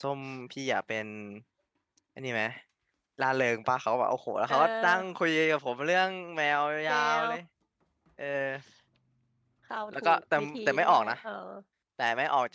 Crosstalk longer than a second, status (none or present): present